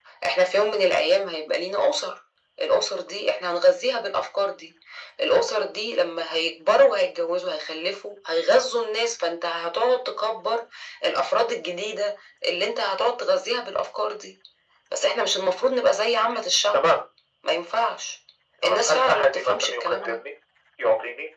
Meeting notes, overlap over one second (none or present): present